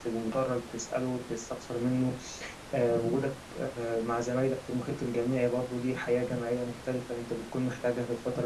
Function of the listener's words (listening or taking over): taking over